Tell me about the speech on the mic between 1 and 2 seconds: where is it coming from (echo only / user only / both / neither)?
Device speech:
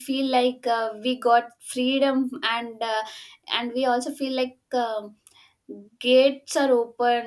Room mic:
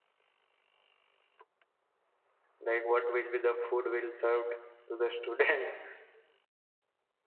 neither